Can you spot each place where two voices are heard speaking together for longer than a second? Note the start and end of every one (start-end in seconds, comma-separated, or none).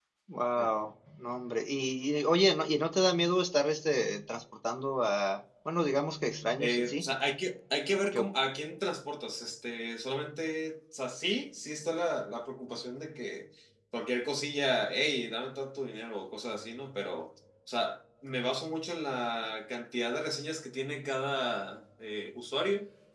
none